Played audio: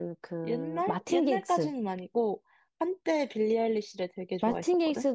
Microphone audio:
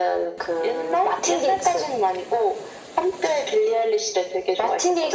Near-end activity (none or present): none